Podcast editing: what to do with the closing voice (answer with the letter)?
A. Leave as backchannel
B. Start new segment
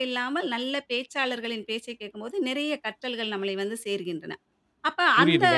B